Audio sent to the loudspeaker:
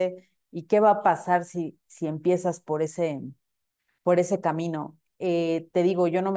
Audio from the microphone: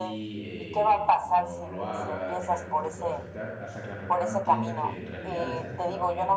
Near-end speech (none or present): present